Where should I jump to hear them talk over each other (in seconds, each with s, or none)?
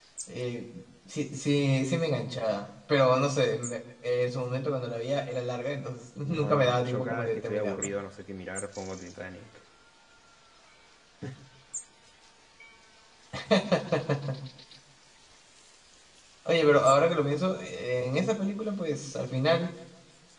6.2 s